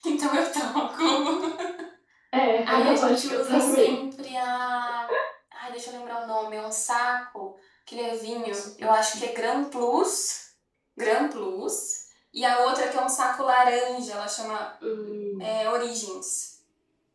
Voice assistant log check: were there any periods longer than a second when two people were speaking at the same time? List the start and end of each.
2.6-4.0

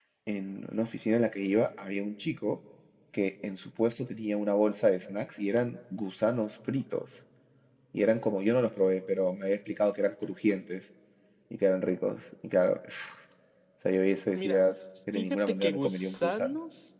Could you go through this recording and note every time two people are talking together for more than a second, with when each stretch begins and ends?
15.1-16.5

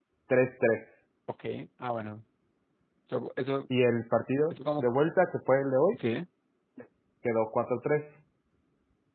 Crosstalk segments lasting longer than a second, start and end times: none

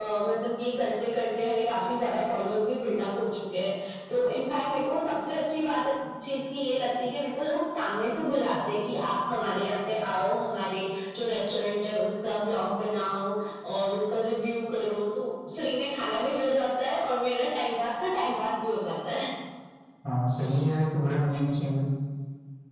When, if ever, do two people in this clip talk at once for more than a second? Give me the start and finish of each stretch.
none

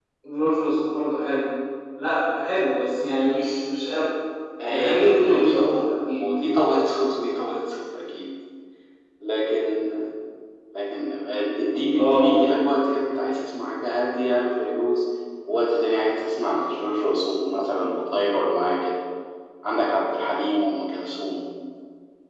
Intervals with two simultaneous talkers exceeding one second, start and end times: 4.7-6.2

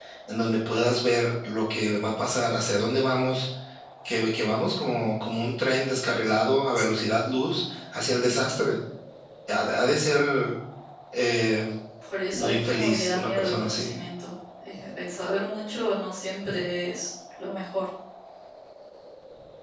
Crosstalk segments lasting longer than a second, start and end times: 12.4-13.9

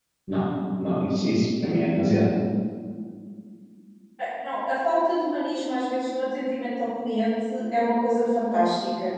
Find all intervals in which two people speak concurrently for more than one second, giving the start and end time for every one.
none

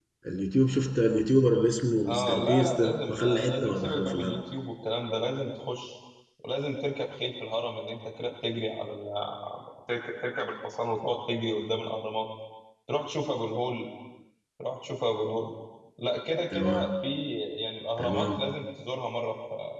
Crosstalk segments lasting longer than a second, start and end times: 2.1-4.4

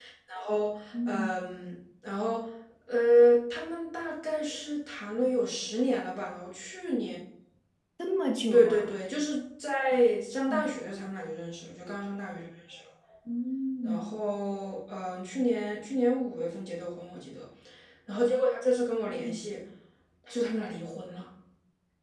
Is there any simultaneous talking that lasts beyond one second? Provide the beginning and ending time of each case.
none

